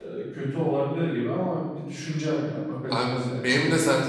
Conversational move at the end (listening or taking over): taking over